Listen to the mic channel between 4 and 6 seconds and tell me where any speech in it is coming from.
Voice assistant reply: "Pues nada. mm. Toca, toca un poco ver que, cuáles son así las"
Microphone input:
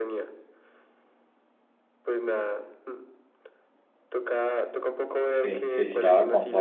both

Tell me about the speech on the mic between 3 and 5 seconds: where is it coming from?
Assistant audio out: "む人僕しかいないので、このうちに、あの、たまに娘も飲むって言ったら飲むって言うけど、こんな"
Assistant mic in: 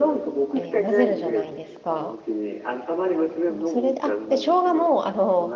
both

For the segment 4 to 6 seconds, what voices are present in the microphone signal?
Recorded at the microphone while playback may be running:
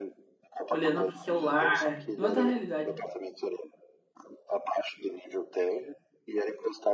echo only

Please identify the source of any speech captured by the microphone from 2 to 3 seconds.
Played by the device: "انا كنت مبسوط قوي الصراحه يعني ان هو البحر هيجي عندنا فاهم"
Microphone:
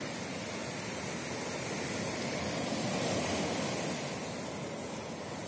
neither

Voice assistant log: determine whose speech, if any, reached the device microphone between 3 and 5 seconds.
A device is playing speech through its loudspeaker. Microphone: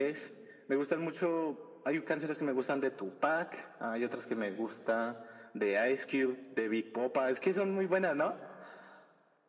echo only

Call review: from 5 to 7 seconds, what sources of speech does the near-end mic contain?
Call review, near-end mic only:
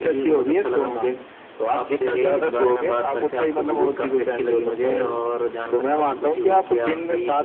echo only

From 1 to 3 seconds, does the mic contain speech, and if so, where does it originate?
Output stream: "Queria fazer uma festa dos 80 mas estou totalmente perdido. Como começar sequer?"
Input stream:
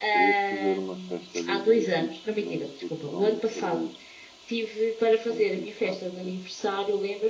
both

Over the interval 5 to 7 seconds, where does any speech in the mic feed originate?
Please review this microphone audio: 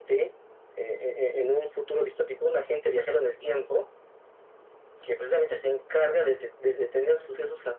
echo only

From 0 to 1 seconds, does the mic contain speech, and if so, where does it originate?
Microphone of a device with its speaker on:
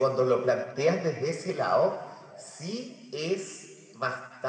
echo only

